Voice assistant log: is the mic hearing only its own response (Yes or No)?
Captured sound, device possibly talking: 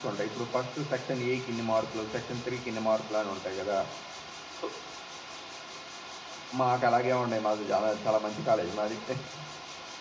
Yes